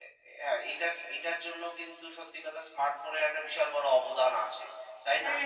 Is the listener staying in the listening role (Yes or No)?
No